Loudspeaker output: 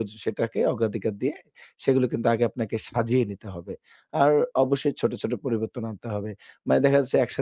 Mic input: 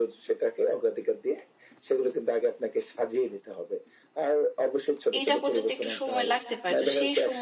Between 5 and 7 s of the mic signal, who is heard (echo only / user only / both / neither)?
both